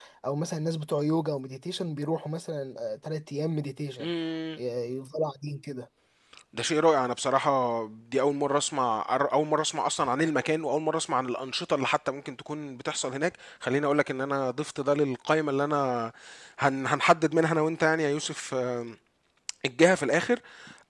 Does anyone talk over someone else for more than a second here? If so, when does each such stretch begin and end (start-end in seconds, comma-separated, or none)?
none